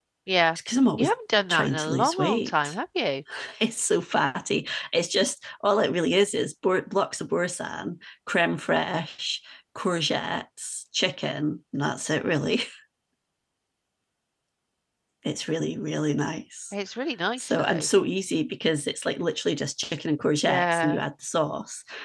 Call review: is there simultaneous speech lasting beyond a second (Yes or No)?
Yes